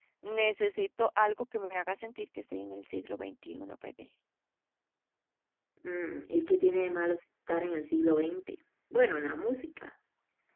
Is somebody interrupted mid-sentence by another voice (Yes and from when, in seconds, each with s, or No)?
No